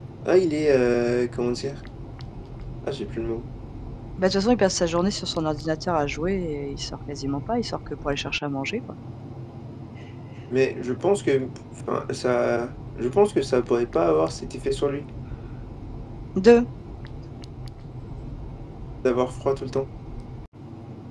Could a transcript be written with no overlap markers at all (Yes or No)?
Yes